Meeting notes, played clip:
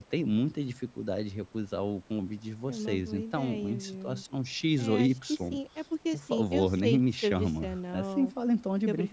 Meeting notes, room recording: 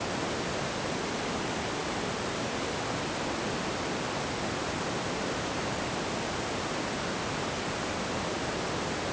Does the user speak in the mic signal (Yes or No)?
No